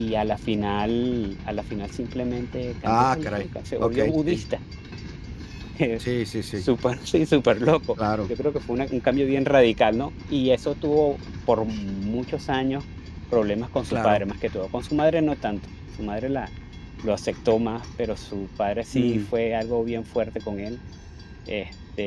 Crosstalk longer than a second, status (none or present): present